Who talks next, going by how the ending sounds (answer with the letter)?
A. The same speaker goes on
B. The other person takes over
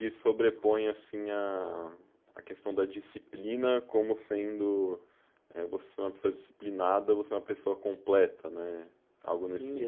B